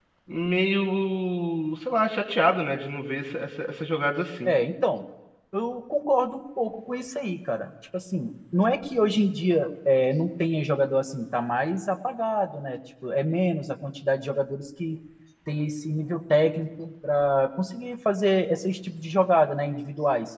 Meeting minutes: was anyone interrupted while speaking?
No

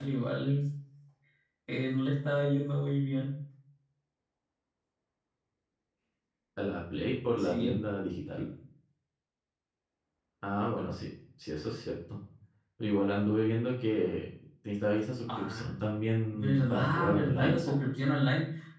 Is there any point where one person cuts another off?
Yes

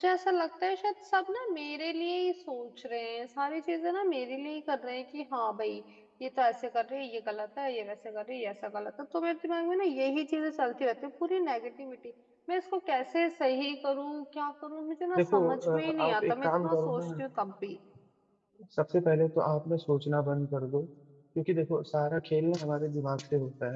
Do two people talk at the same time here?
Yes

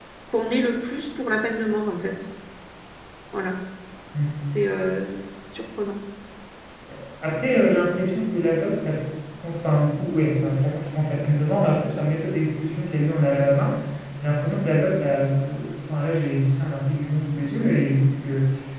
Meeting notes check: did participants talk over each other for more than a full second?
No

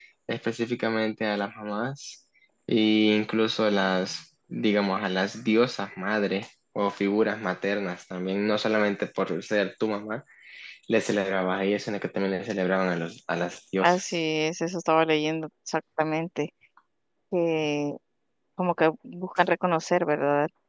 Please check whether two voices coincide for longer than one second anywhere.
No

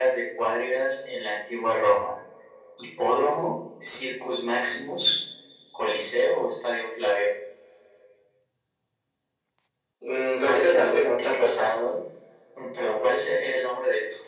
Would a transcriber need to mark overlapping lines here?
Yes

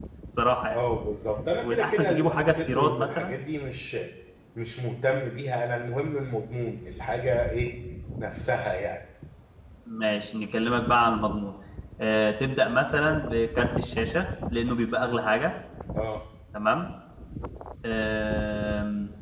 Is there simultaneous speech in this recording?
Yes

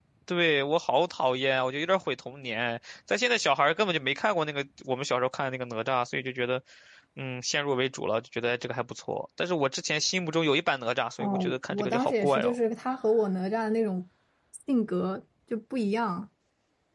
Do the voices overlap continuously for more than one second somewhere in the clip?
Yes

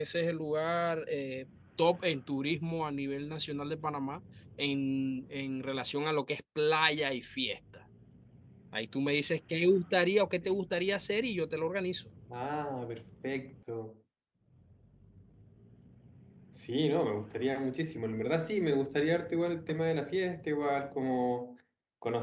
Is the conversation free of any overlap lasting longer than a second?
Yes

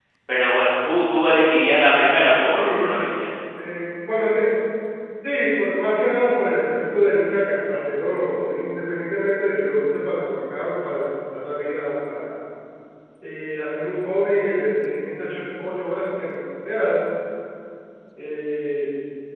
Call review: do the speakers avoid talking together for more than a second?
Yes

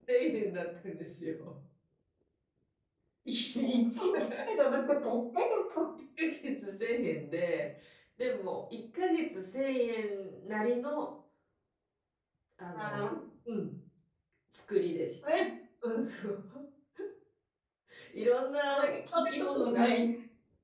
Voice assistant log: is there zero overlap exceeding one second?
No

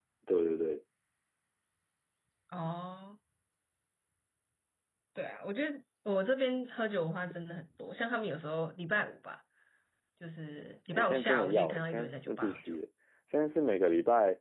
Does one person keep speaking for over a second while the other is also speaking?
Yes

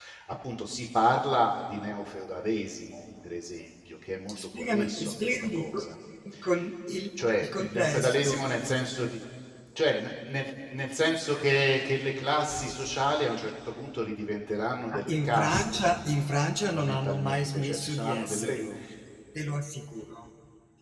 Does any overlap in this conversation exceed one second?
Yes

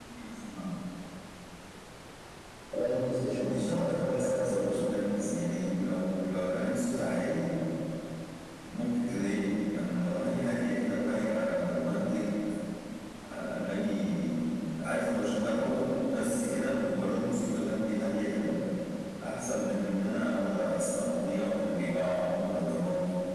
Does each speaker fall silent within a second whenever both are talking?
No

